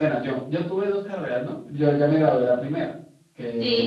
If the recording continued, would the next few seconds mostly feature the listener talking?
No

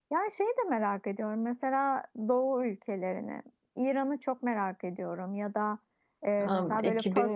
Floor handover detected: No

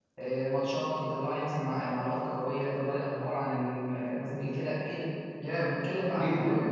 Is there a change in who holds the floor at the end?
Yes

